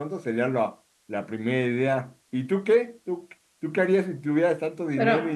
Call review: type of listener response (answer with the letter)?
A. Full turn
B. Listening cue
A